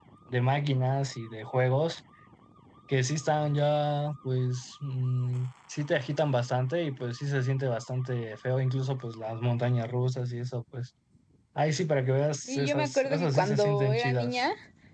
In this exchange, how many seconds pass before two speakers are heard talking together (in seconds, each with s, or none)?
12.5 s